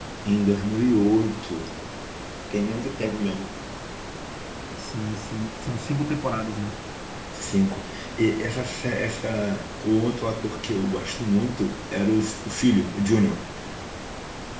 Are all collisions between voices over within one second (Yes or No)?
Yes